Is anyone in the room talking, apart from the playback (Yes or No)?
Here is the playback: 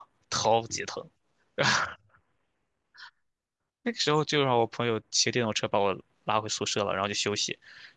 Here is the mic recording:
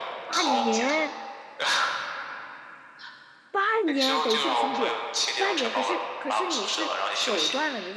Yes